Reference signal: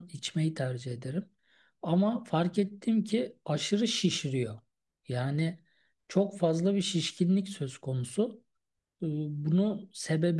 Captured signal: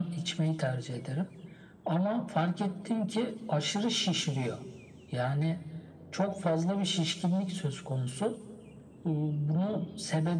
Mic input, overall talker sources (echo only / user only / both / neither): echo only